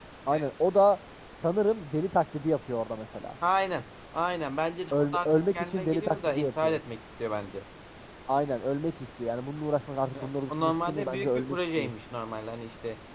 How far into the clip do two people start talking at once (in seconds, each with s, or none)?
4.9 s